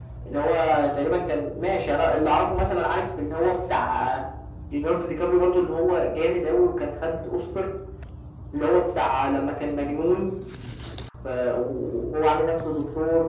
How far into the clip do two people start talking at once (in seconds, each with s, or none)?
none